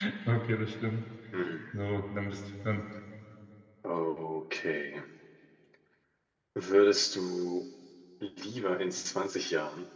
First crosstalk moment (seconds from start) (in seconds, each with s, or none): none